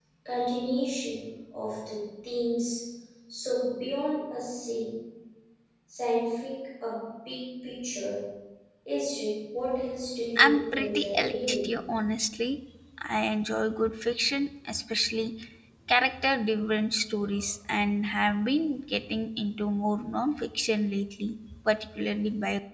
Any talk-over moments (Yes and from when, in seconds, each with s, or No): Yes, from 10.4 s